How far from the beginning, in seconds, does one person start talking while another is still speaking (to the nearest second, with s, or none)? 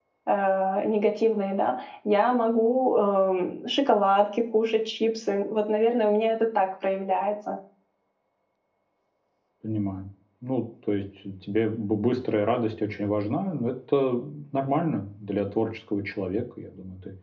none